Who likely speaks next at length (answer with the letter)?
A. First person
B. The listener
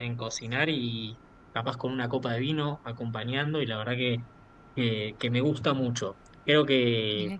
A